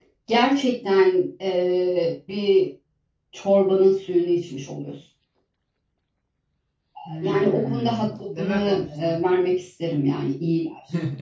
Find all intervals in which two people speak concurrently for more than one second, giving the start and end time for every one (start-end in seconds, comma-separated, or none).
7.2-9.2